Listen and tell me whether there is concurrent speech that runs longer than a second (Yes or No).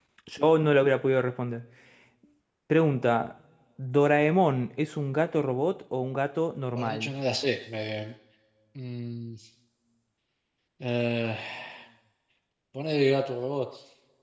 No